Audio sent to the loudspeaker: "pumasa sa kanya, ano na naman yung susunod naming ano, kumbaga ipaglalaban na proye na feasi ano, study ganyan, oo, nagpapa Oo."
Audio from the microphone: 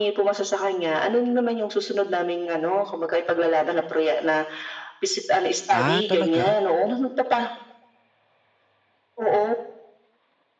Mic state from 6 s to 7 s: both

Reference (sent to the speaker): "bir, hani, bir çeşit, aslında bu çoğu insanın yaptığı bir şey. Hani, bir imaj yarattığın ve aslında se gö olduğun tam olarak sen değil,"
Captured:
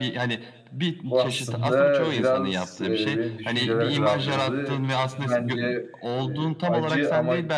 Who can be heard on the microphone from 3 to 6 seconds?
both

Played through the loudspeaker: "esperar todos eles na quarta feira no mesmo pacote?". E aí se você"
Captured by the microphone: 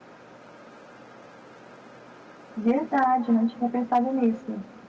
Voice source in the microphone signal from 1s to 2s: neither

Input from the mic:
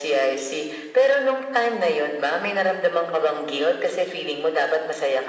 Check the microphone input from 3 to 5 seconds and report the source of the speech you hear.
echo only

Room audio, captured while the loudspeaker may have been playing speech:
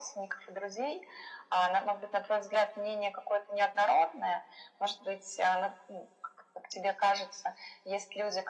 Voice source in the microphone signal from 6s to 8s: echo only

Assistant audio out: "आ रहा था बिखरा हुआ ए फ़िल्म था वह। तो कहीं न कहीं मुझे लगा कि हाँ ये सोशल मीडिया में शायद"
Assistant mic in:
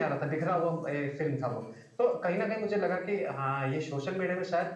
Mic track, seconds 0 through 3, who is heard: echo only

